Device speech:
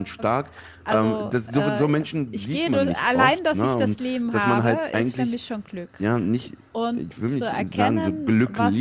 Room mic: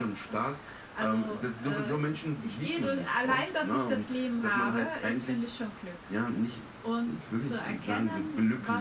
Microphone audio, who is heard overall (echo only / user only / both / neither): echo only